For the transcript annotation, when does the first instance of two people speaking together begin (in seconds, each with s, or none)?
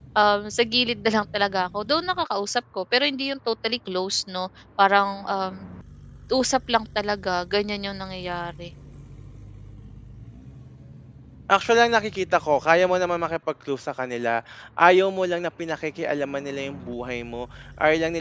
none